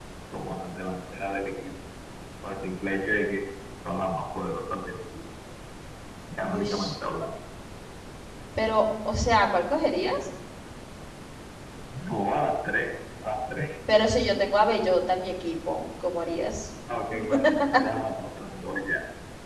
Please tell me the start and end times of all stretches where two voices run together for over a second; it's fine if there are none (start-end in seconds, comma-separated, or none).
none